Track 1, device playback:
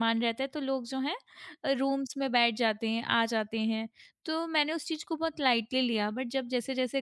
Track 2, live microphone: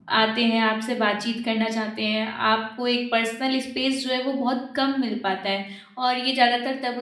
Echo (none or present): none